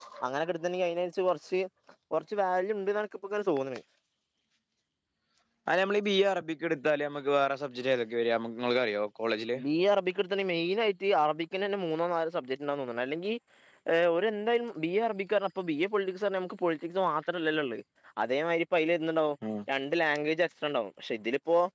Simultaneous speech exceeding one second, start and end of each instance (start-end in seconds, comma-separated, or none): none